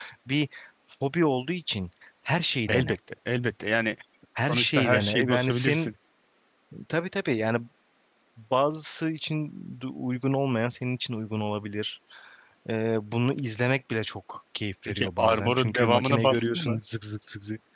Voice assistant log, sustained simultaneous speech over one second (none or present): present